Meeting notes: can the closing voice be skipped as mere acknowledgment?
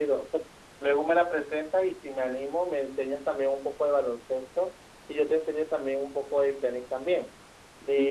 No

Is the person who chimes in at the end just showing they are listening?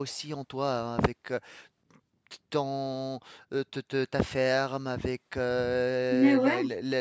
Yes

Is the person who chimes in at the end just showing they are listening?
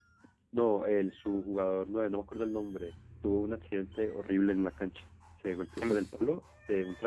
Yes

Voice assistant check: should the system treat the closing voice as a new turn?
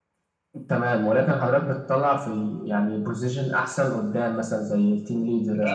Yes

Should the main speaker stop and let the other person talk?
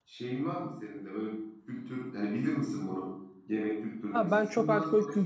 Yes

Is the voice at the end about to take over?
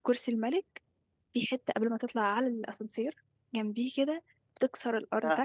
No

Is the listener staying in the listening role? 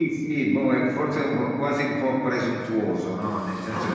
Yes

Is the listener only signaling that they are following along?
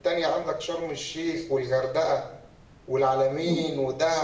Yes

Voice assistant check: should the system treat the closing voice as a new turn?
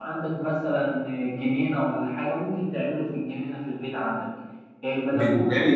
No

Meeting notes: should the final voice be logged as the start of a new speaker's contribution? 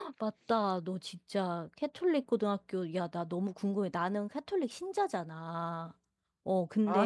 No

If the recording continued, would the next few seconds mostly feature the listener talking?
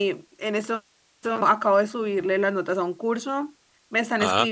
No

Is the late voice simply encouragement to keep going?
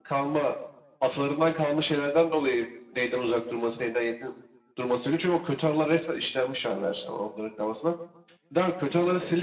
Yes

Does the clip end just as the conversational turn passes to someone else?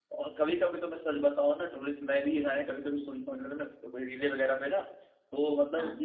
No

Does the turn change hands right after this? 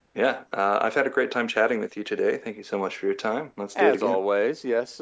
Yes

